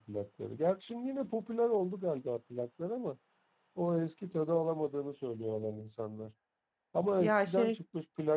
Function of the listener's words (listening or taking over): listening